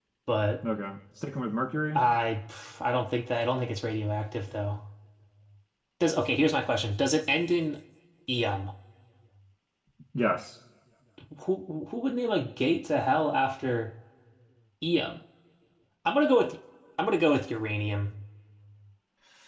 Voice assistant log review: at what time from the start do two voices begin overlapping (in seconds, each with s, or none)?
none